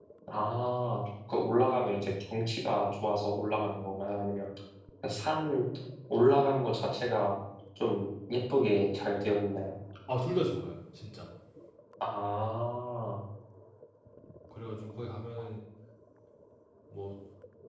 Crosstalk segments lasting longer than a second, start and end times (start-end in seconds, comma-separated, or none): none